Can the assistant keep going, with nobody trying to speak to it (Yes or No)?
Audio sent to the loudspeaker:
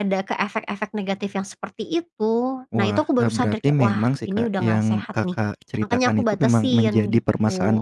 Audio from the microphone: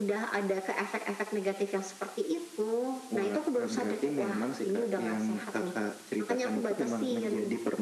Yes